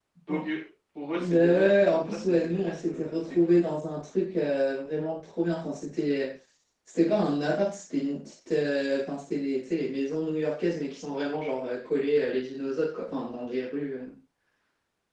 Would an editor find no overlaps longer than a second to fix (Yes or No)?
No